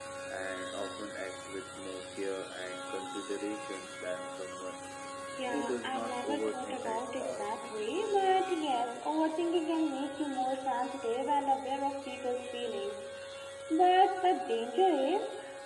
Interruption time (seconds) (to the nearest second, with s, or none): 6 s